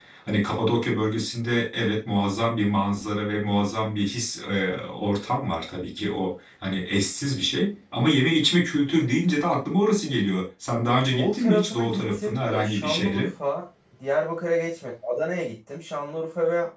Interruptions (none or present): present